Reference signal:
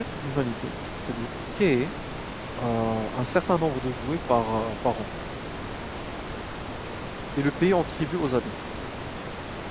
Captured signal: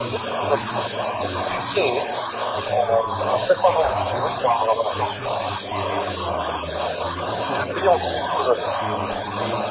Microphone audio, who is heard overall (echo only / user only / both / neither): both